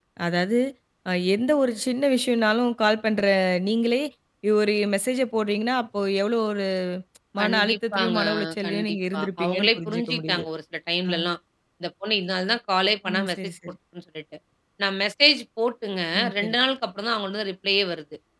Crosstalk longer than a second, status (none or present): present